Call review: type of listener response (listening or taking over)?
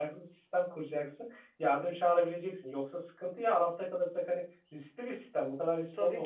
taking over